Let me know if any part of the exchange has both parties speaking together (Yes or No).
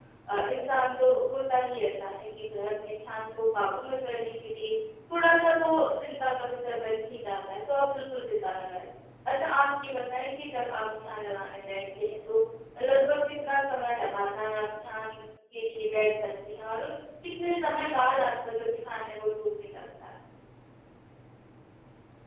No